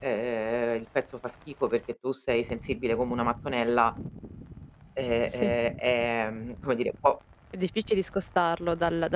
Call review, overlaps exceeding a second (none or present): none